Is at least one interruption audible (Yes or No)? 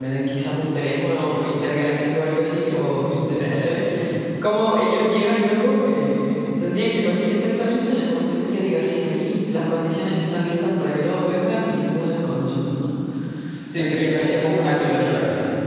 Yes